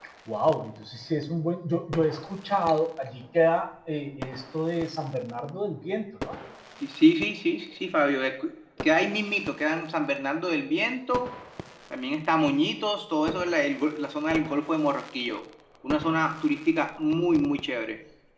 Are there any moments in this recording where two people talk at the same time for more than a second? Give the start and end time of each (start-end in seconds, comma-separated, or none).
none